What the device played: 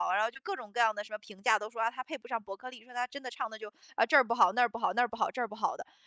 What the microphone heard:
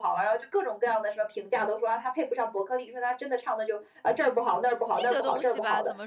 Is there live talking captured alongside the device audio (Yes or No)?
Yes